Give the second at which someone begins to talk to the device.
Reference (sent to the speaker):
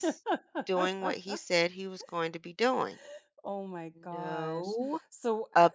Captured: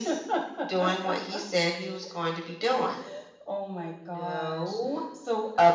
none

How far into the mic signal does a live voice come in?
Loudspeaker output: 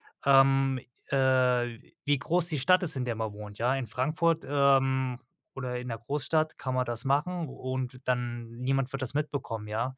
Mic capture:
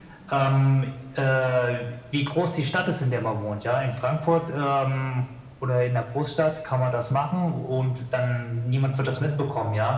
none

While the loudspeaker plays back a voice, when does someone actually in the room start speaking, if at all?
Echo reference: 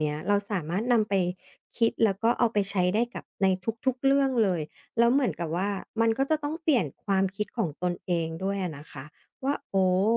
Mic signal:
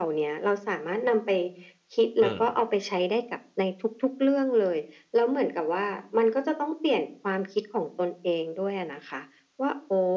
2.2 s

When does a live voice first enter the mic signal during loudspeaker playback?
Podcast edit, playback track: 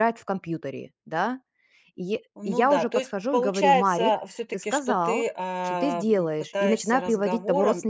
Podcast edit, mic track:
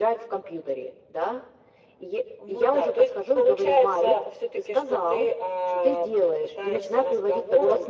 none

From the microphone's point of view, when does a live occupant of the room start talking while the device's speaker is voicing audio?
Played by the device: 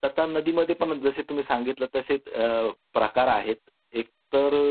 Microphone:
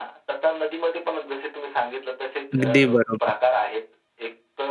2.5 s

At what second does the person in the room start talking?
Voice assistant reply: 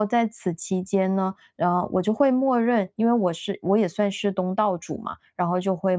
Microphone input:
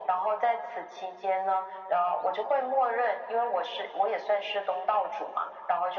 none

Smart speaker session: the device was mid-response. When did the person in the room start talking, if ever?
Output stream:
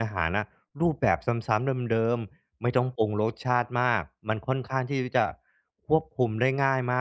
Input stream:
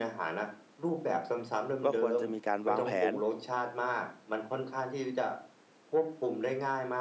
1.8 s

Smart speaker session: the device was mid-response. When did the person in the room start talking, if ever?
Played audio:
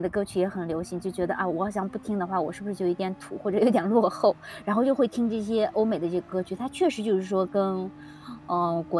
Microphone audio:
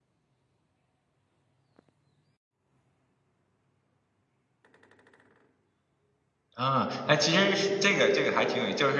6.6 s

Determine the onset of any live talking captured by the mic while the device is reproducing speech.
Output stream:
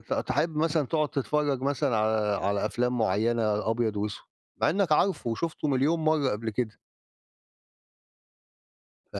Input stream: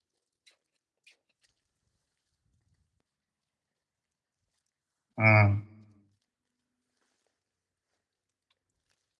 5.2 s

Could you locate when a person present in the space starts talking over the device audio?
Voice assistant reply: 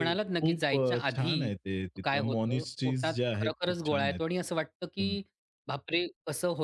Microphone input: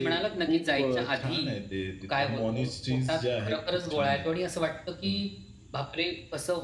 none

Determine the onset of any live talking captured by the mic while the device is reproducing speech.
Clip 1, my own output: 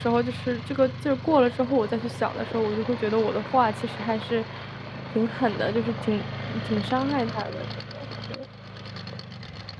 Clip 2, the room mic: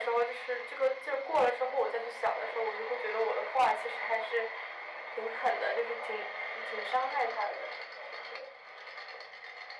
none

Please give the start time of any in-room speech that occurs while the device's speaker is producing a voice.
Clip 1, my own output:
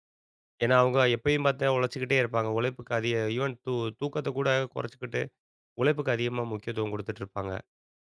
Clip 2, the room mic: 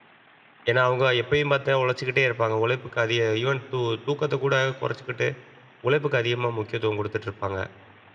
none

